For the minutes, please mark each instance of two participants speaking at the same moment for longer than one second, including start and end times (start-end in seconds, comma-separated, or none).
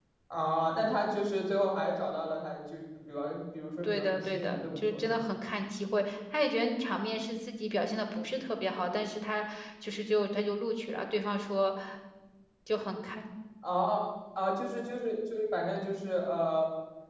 3.8-5.2